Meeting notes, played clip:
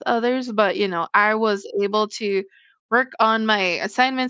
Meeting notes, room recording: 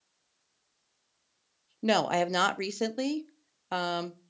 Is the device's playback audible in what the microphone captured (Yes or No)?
No